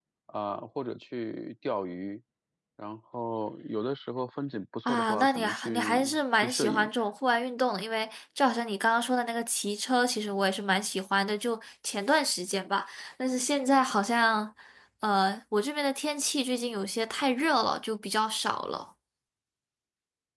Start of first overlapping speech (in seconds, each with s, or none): 4.9 s